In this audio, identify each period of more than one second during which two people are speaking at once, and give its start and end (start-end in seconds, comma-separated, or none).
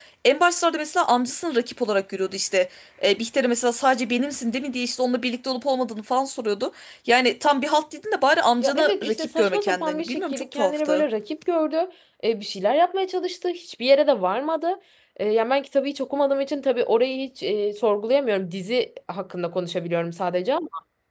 8.6-11.0